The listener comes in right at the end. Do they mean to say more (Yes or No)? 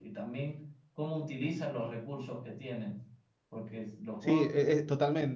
Yes